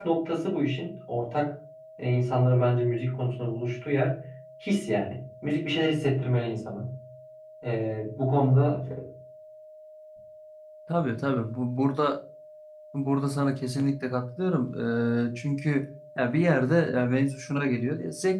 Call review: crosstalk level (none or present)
none